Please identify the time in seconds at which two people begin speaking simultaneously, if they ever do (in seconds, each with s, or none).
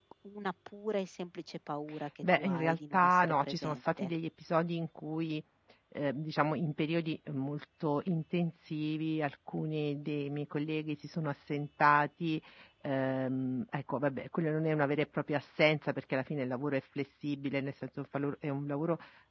2.2 s